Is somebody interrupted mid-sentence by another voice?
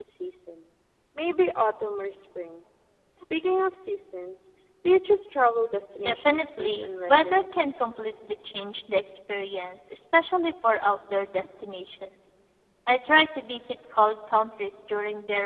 Yes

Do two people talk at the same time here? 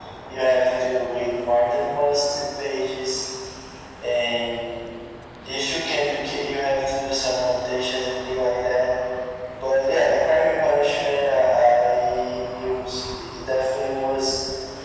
No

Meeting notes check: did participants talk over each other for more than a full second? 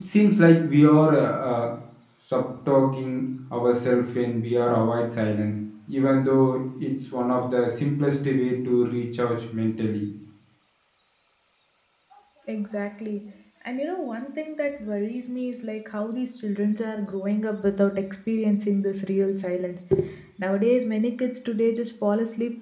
No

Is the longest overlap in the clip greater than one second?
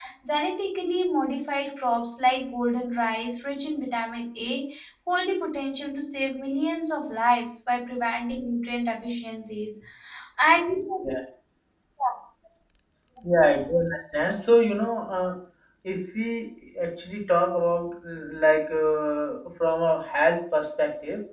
No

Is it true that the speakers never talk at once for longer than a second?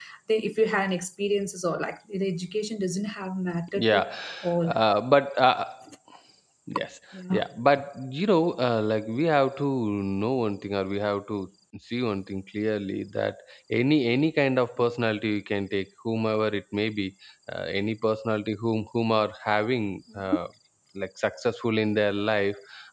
Yes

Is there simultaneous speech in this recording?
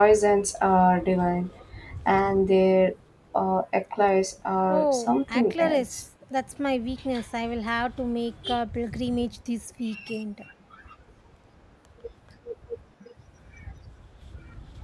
Yes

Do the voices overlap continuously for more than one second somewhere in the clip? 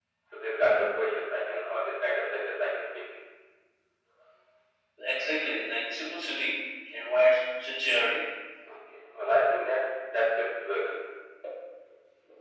No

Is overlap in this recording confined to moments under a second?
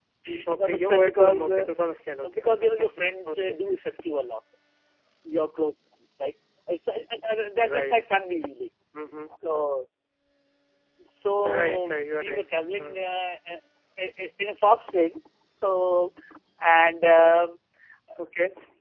No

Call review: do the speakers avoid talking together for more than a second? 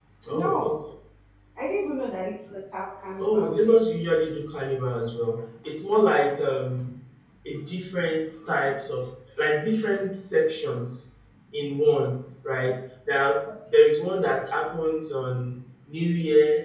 Yes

